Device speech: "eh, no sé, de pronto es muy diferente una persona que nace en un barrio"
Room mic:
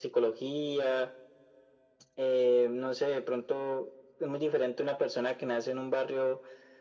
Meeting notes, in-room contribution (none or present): none